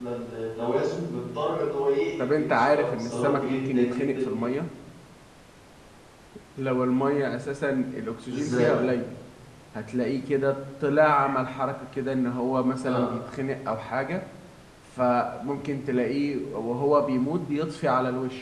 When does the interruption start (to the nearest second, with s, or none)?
2 s